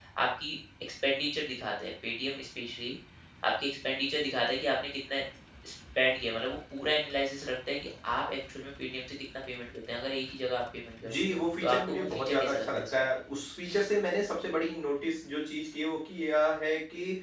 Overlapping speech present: Yes, from 11.0 s

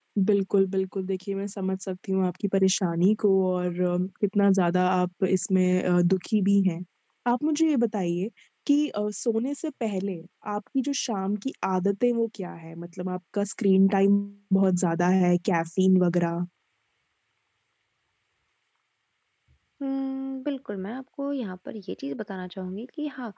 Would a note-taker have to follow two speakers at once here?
No

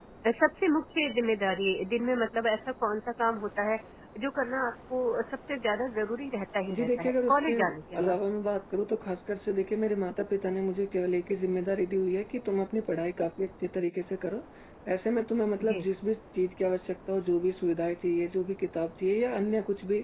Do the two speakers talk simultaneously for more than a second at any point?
Yes, from 6.7 s

